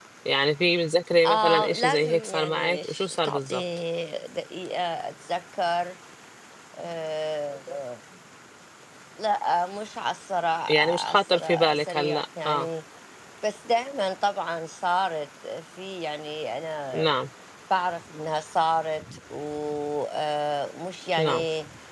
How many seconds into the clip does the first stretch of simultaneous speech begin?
1.2 s

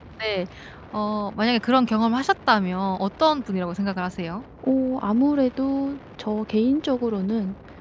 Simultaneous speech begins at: none

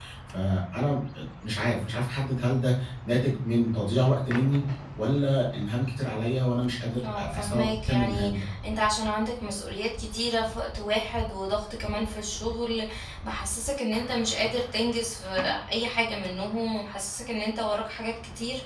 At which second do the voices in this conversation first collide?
7.0 s

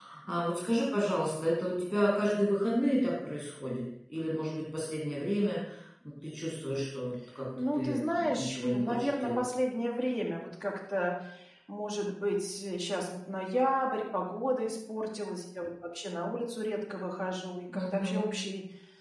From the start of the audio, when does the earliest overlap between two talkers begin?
7.8 s

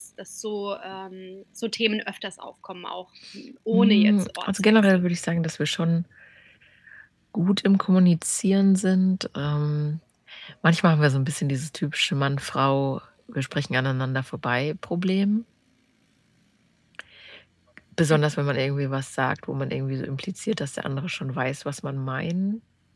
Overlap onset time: 3.7 s

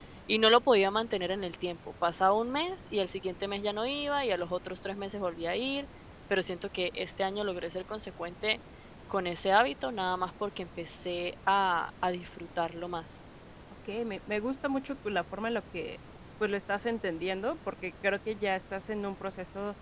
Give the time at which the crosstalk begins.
none

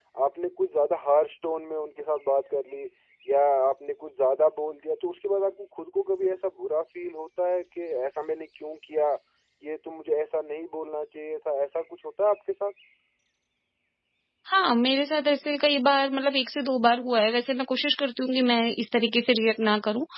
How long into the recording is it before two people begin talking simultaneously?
none

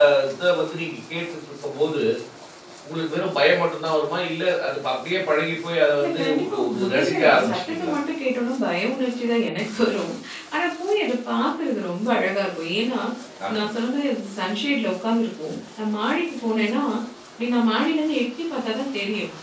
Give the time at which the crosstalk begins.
6.0 s

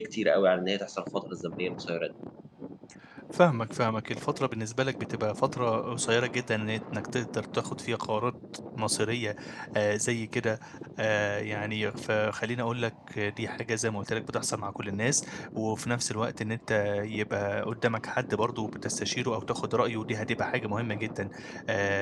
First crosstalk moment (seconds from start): none

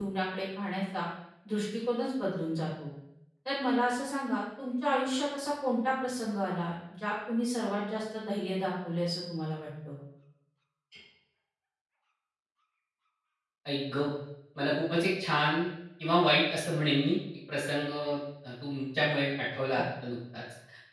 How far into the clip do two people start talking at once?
none

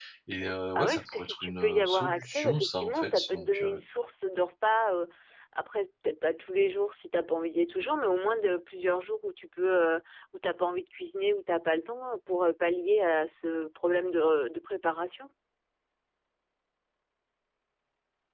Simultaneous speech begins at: 0.8 s

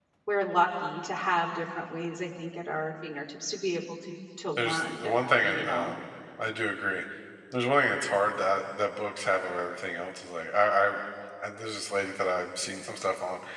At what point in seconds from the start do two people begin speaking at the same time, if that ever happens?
4.6 s

